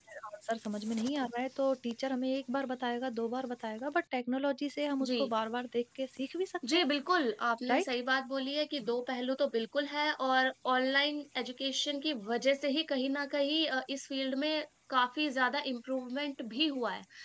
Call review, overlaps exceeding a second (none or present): none